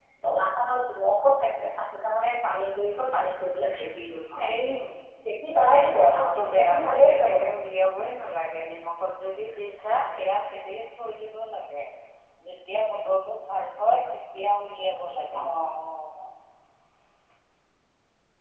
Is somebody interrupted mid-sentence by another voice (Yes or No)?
Yes